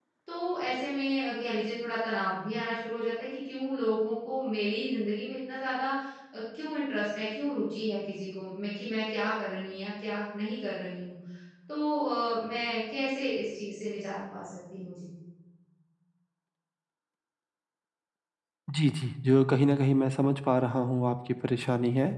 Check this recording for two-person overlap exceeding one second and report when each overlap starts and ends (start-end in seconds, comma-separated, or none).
none